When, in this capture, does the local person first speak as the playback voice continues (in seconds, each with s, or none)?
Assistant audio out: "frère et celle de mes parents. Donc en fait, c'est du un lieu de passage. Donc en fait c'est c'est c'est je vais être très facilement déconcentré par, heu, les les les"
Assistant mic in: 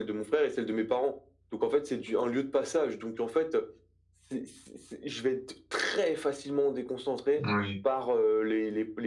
7.4 s